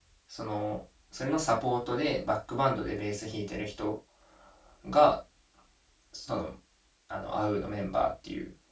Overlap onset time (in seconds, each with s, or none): none